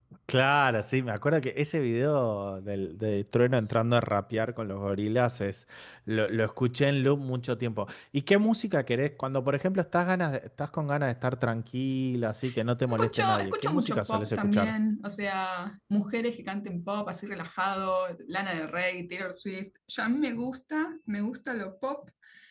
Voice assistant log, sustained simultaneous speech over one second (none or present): present